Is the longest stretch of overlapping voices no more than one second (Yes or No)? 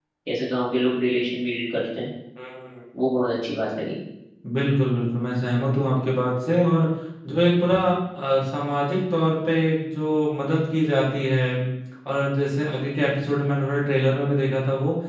Yes